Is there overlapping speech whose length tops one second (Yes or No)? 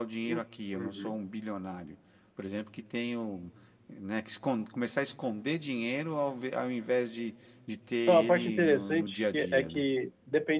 Yes